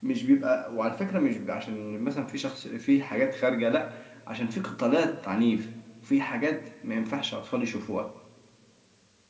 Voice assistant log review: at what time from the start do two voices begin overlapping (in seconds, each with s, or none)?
none